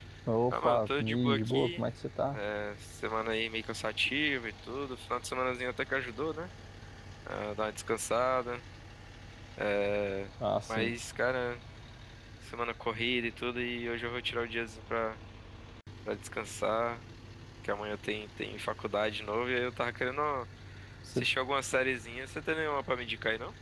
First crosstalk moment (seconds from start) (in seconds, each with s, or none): 0.5 s